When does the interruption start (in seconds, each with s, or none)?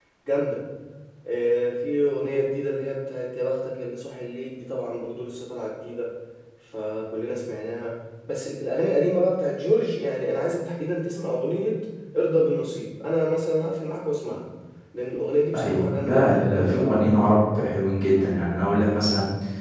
15.5 s